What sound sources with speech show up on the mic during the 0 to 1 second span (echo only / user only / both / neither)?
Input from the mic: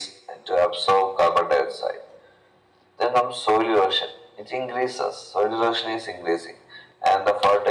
echo only